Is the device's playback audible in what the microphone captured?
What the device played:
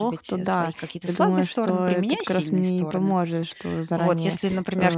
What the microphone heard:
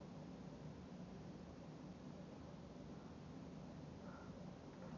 No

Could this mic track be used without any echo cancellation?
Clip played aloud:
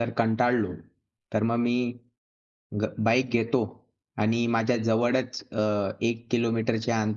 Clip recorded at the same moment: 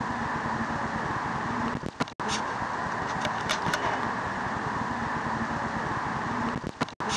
Yes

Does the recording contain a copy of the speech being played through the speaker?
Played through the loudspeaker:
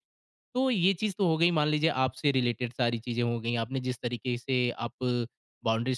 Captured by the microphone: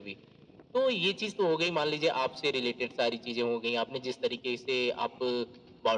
Yes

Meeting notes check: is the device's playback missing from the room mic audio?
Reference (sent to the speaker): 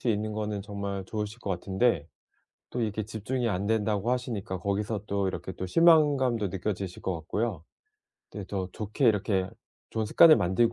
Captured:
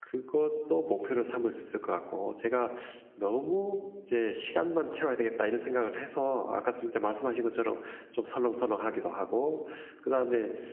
Yes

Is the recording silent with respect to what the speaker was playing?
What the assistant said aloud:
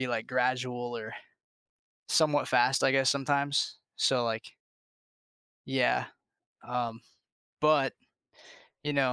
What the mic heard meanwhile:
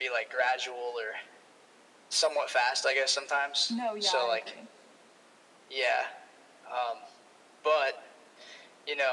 No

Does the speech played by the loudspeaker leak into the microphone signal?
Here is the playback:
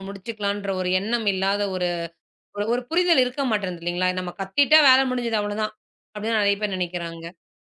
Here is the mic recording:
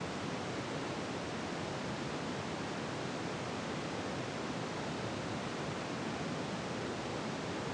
No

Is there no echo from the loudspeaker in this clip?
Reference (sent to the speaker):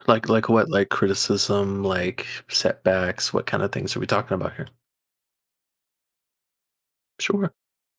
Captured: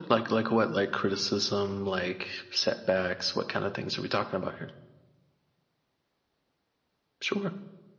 No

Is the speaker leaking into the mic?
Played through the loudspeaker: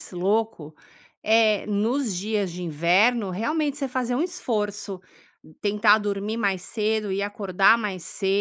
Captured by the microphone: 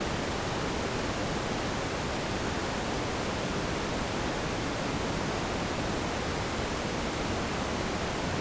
No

